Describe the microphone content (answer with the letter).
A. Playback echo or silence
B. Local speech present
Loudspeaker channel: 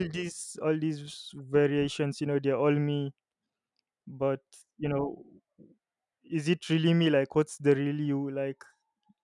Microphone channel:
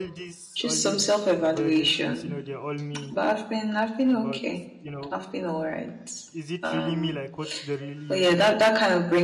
B